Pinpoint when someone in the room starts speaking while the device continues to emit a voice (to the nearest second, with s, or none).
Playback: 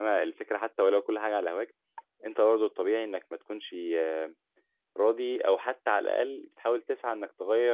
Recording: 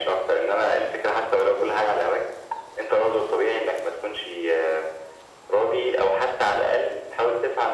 none